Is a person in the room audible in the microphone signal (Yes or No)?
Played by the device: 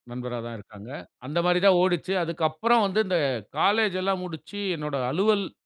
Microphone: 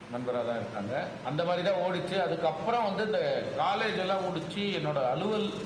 No